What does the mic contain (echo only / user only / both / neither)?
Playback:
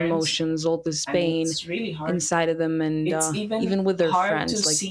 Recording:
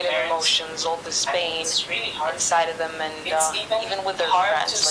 echo only